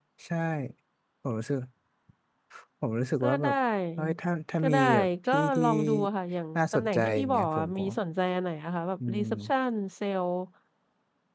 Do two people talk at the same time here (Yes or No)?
Yes